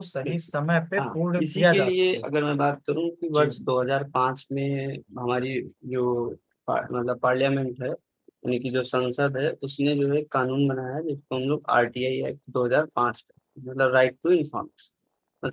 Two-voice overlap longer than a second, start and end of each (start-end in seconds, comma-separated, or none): 1.0-2.2